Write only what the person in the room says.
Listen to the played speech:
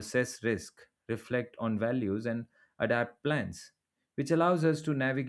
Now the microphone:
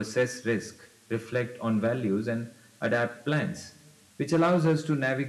none

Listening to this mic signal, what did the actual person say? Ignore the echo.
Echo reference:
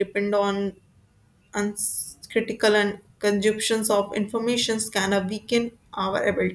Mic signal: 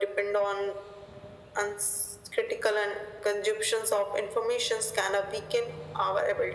none

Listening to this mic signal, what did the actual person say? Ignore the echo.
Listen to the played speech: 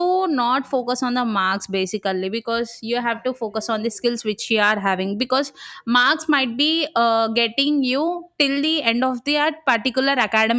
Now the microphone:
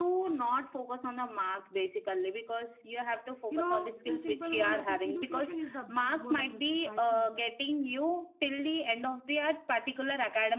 you know in simple one i think education is the backbone of the society

